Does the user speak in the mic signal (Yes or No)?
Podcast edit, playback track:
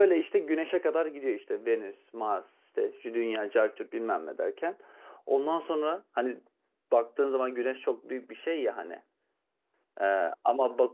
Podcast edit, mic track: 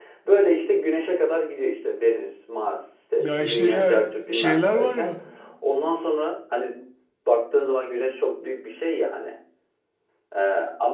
Yes